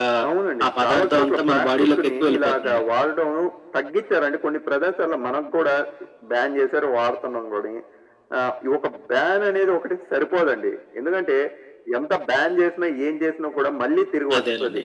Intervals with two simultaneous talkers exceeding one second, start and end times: 0.6-2.8

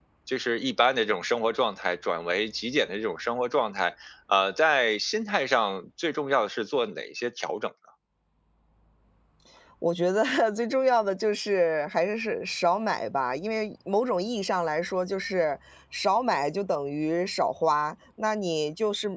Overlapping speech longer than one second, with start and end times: none

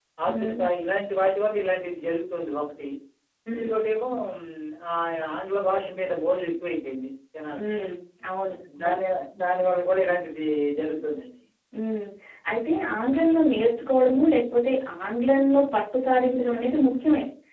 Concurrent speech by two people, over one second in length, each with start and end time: none

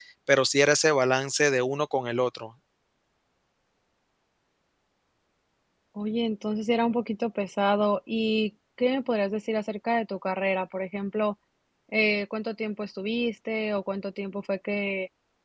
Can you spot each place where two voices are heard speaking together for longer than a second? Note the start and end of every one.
none

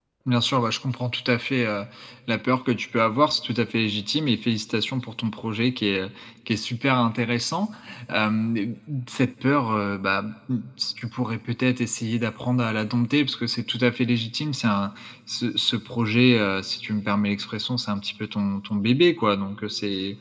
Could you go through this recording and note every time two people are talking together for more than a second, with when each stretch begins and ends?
none

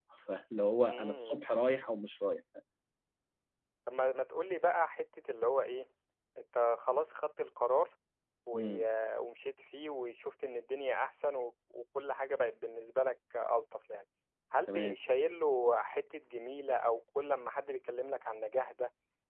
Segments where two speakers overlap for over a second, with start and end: none

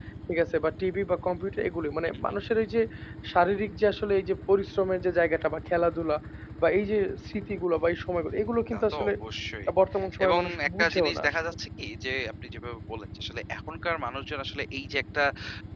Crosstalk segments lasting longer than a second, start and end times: 10.2-11.5

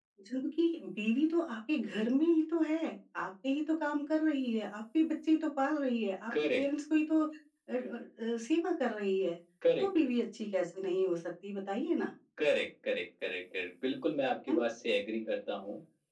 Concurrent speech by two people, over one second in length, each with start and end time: none

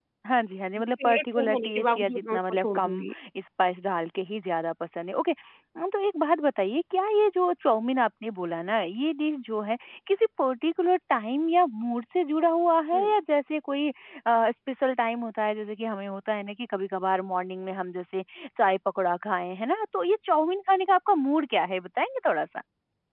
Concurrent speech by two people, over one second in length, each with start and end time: 0.8-3.0

